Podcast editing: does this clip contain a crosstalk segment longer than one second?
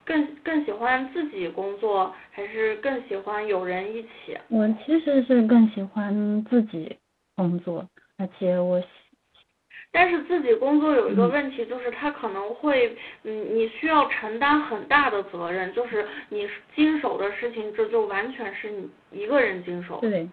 No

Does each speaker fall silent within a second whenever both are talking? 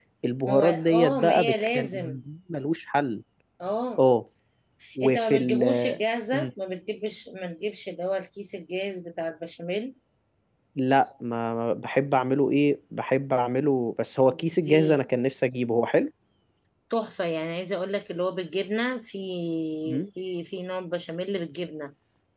No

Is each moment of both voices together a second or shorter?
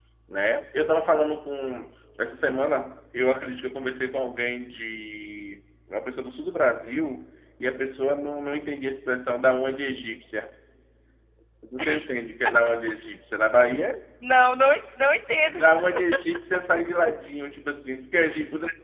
Yes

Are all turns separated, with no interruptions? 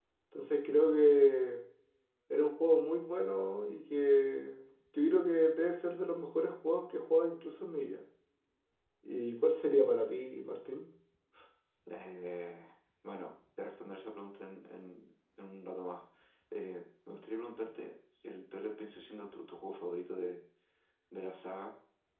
Yes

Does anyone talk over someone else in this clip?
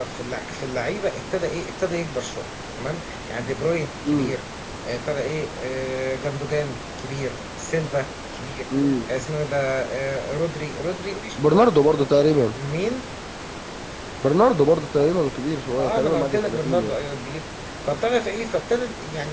Yes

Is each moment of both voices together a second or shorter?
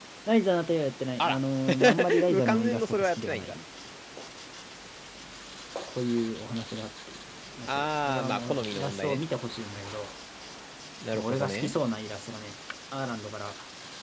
No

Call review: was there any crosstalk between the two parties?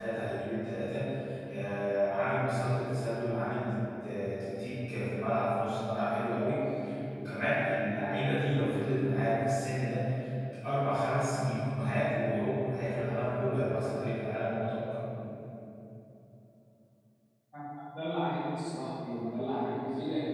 No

